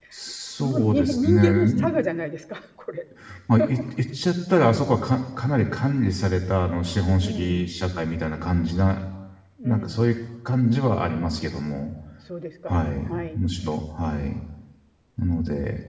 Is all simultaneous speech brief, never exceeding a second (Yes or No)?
No